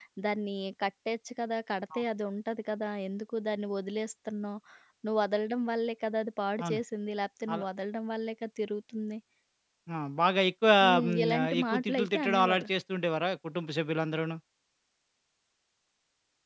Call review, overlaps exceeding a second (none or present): present